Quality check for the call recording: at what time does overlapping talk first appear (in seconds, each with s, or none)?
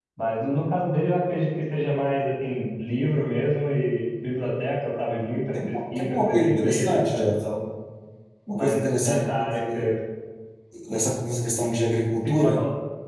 5.7 s